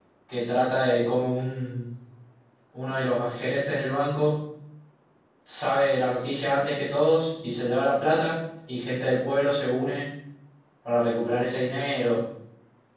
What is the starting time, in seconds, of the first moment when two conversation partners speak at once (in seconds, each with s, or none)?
none